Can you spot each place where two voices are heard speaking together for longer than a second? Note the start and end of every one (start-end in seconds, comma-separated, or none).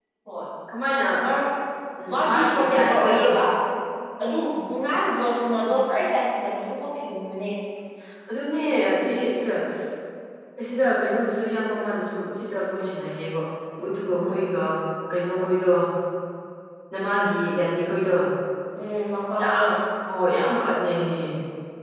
2.1-3.3